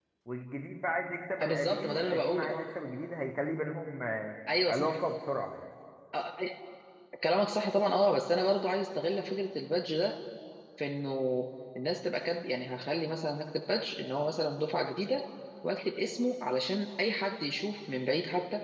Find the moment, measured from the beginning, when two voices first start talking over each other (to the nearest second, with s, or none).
1 s